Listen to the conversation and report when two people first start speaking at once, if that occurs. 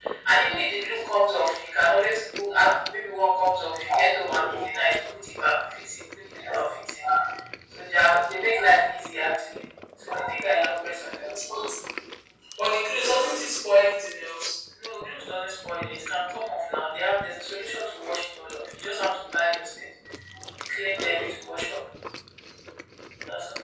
none

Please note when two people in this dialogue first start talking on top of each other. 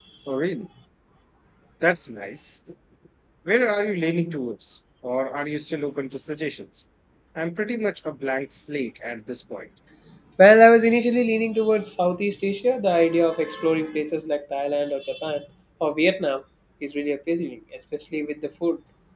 none

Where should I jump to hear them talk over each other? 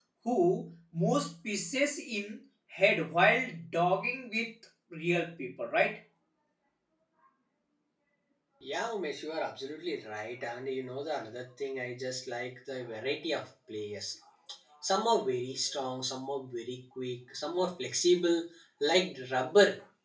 none

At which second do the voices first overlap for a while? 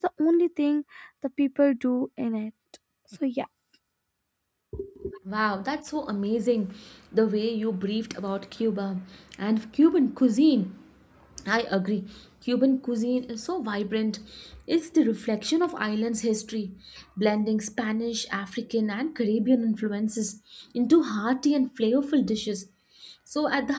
none

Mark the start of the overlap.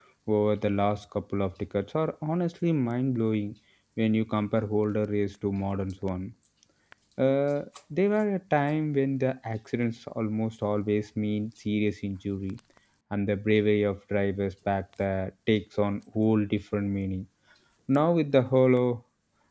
none

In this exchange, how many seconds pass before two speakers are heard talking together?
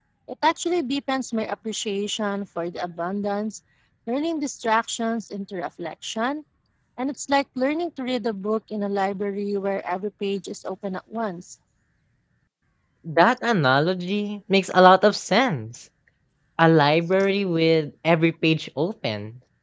none

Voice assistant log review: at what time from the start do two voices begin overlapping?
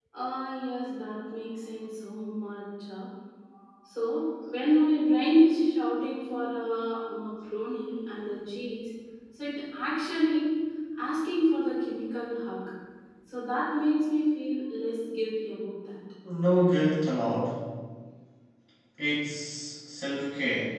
none

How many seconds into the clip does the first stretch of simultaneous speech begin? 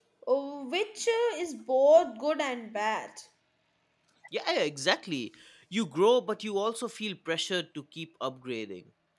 none

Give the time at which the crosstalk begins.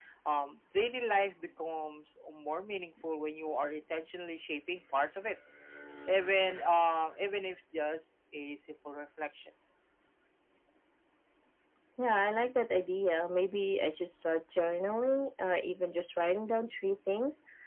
none

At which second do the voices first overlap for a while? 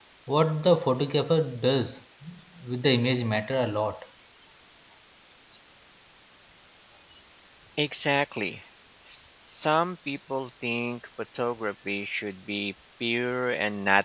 none

